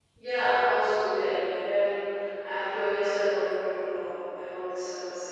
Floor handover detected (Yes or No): Yes